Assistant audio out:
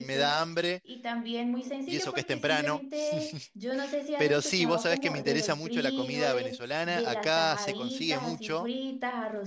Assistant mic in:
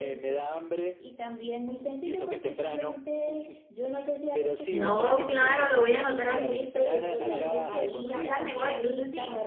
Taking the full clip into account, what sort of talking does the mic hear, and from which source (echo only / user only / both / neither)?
both